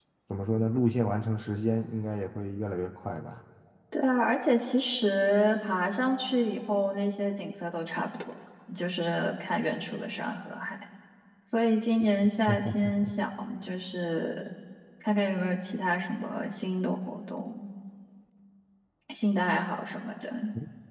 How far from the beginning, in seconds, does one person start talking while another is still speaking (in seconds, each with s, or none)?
none